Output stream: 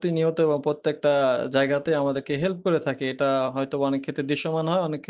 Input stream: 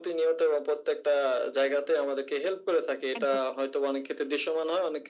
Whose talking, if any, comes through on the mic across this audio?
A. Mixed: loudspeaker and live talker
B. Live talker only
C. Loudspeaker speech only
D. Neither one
A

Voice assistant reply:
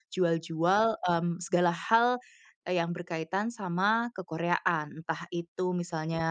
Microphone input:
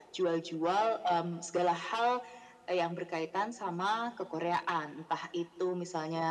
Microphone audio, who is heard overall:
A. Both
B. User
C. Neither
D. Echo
D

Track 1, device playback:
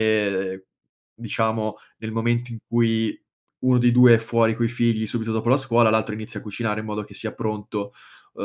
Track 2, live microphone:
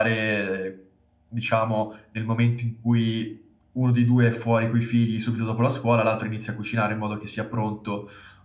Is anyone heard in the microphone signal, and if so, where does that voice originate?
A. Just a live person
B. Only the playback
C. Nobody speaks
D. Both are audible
B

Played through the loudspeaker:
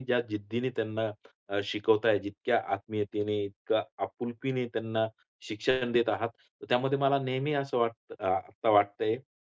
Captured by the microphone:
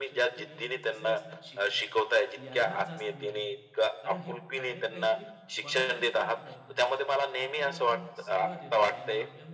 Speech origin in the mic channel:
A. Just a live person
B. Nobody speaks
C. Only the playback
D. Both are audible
D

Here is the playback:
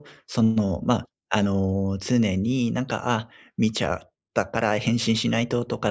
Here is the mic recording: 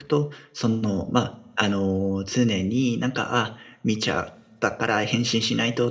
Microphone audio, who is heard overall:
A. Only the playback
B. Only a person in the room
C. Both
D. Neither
A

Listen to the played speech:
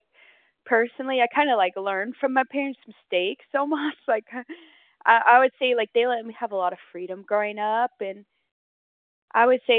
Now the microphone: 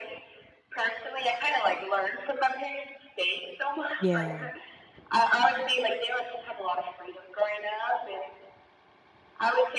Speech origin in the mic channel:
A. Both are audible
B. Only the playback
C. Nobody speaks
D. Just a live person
A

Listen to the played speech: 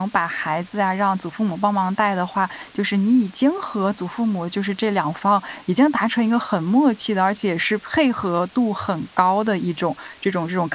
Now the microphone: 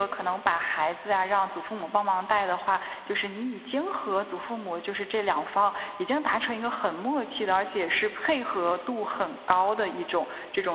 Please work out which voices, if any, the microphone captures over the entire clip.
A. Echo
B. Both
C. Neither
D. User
A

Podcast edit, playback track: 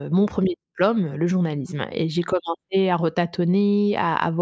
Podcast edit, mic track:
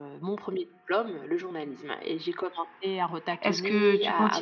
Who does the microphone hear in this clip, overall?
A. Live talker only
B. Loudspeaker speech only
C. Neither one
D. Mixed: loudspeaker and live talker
D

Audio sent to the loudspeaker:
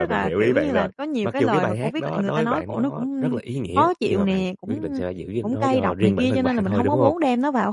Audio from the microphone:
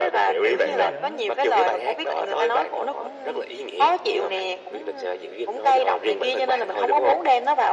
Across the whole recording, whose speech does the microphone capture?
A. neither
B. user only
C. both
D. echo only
C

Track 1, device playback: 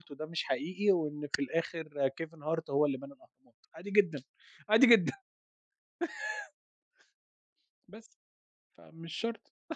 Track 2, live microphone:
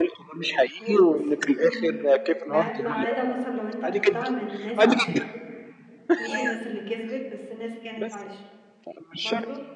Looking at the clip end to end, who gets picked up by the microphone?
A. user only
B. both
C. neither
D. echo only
B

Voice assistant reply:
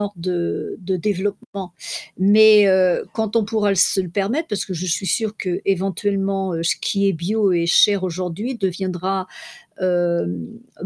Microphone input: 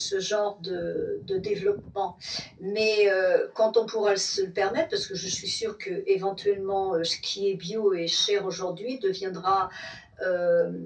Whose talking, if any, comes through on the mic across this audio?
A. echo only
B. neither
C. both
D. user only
A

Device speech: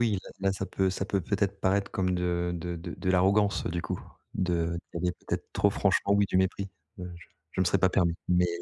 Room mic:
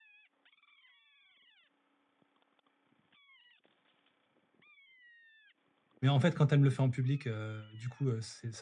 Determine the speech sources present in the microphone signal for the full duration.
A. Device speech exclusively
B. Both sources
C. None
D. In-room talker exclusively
D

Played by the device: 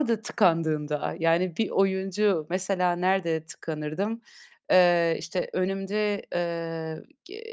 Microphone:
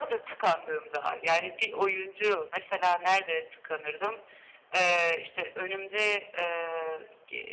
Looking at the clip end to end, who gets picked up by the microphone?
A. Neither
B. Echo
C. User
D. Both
B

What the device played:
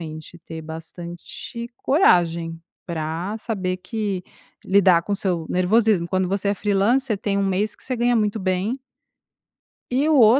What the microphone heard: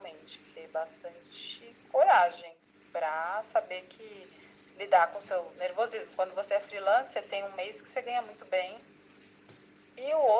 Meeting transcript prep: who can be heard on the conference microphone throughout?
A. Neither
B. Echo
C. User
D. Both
B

